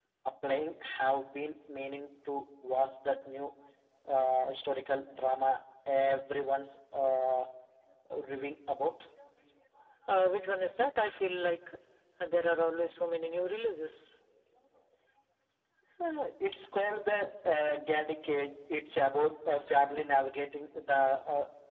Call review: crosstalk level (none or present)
none